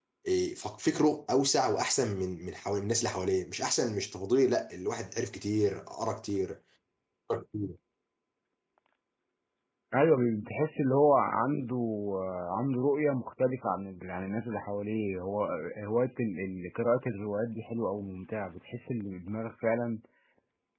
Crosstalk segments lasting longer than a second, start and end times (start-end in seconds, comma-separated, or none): none